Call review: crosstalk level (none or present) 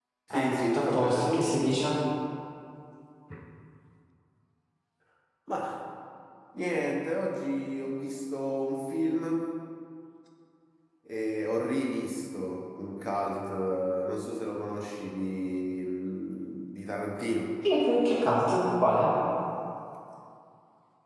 present